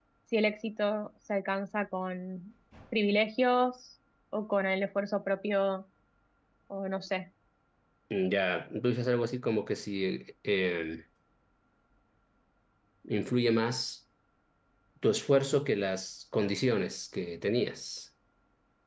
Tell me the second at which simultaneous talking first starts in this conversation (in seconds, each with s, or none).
none